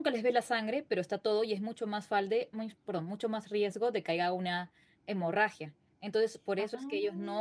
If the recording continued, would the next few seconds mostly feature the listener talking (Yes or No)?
No